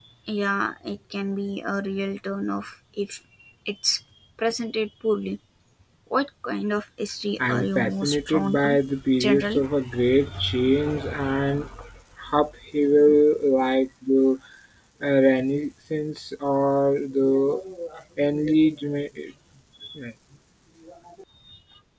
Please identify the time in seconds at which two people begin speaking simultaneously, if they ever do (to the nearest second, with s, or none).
7 s